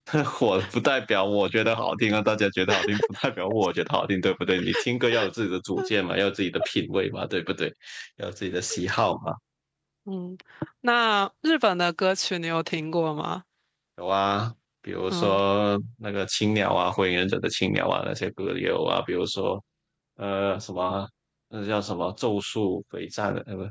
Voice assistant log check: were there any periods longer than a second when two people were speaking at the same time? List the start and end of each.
none

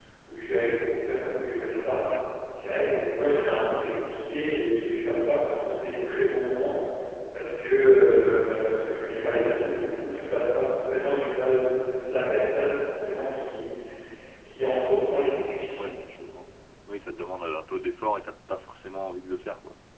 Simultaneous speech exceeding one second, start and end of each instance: none

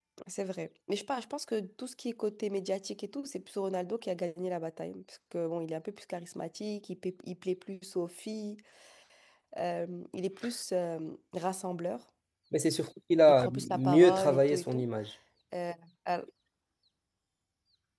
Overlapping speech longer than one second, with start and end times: 13.3-14.8

